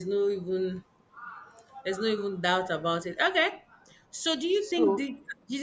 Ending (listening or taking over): listening